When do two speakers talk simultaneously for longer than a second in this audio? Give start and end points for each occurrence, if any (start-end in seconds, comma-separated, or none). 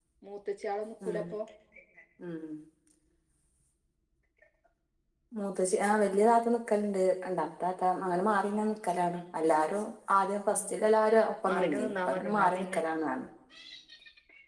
11.4-12.8